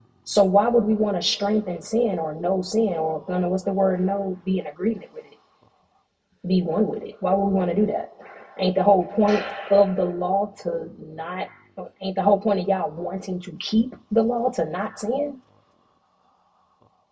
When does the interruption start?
none

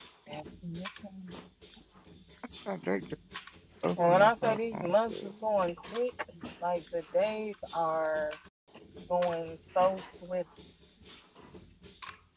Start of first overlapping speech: 4.1 s

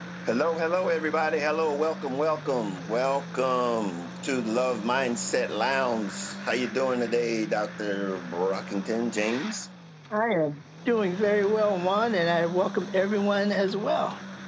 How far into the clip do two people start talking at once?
none

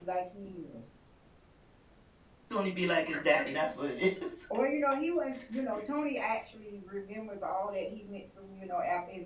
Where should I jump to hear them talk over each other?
none

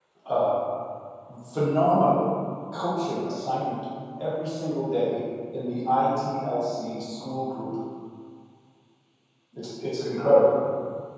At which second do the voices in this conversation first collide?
none

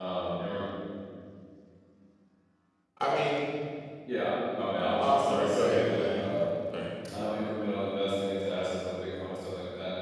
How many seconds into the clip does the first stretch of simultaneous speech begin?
5.0 s

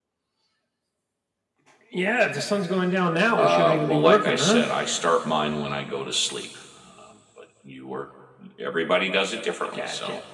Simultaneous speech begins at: 3.4 s

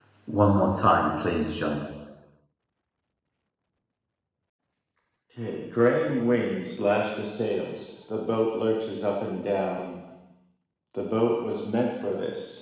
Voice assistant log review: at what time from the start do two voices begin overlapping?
none

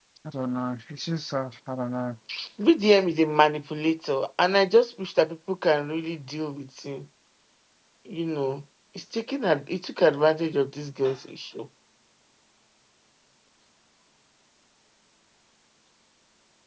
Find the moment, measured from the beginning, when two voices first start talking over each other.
none

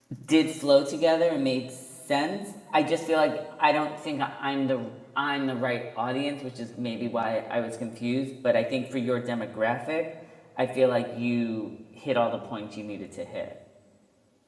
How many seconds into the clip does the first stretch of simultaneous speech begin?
none

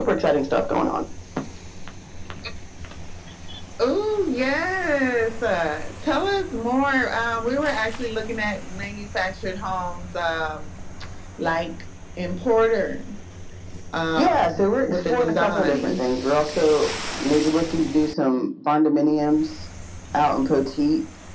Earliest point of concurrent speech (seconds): 14.2 s

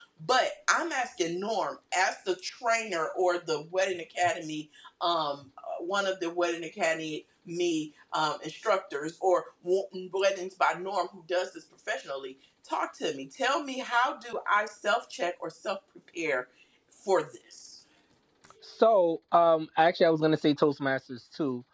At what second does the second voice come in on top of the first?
none

